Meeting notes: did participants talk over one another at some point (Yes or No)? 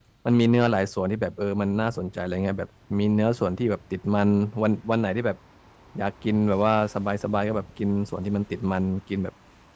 No